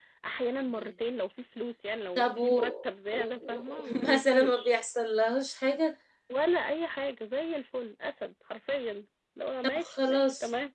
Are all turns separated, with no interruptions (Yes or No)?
No